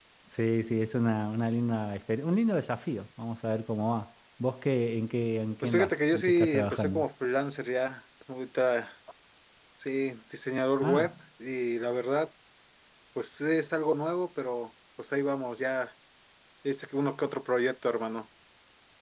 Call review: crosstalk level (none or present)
present